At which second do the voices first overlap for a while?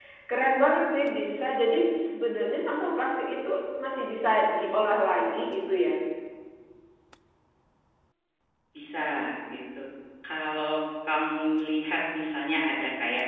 none

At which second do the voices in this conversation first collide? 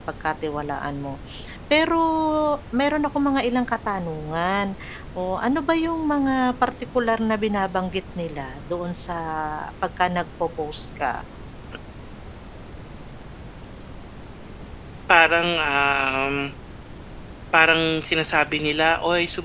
none

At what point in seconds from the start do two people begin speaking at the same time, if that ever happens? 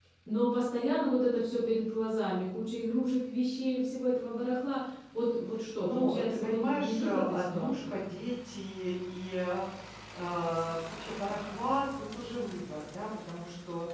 5.8 s

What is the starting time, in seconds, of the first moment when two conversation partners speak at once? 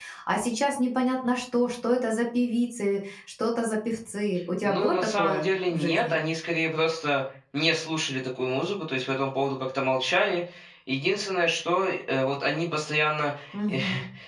4.6 s

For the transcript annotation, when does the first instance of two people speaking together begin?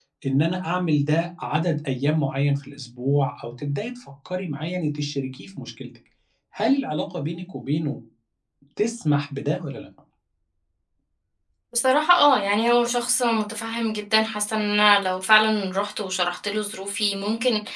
none

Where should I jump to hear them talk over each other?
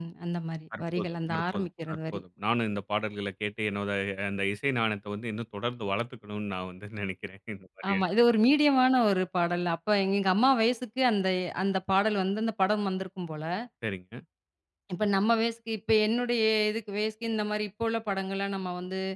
0.8 s

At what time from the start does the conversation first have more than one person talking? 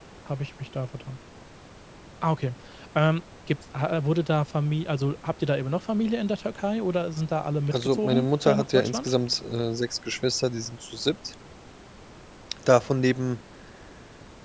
7.7 s

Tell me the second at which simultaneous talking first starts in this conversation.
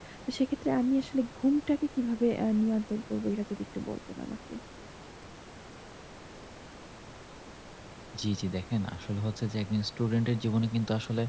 none

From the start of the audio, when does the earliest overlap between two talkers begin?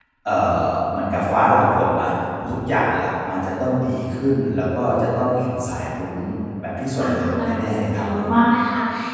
7.0 s

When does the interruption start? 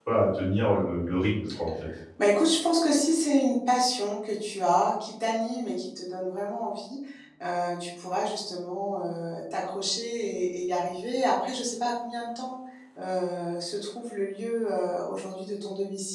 none

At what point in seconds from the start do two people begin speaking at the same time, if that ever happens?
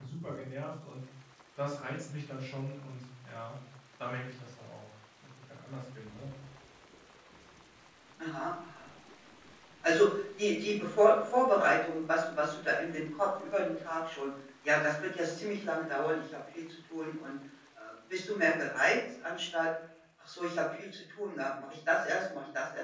none

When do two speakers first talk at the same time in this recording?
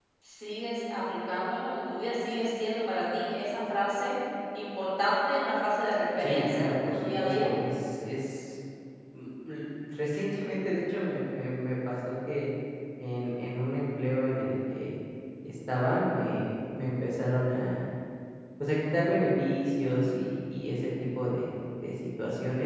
6.2 s

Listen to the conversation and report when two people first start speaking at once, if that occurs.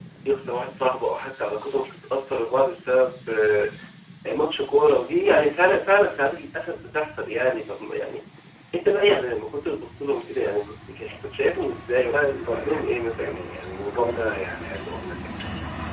12.1 s

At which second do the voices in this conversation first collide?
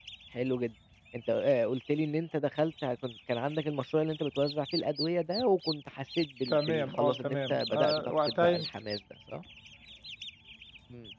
6.5 s

